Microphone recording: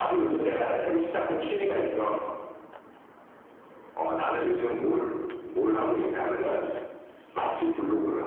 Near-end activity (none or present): none